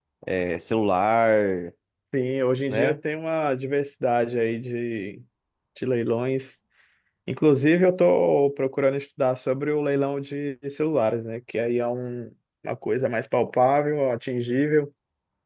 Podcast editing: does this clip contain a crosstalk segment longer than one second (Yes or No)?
No